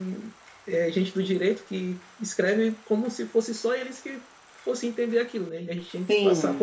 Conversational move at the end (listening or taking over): taking over